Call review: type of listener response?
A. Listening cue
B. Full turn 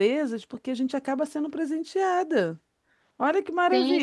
B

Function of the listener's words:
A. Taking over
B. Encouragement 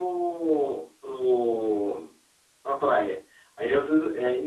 B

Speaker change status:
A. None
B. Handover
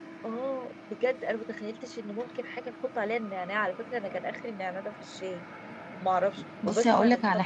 B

